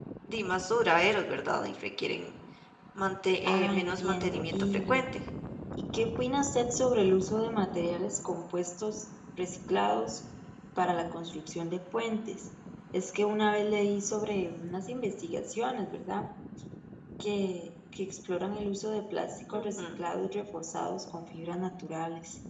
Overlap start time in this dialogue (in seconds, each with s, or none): 3.5 s